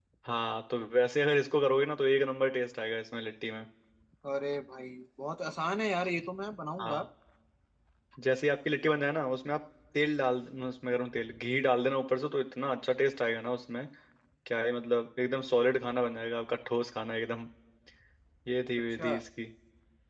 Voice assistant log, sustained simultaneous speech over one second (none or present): none